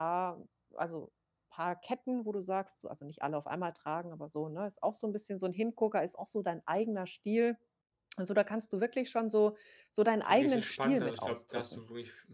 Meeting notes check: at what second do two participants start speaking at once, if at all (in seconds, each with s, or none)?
10.2 s